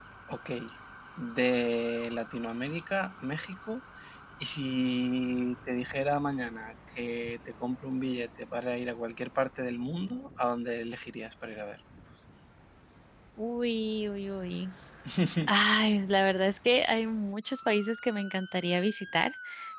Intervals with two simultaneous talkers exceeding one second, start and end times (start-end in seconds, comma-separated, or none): none